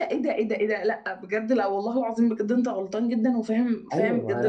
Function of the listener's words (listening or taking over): taking over